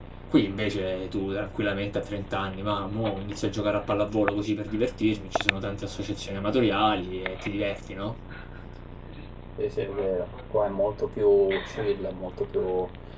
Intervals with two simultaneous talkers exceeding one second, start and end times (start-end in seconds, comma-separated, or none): none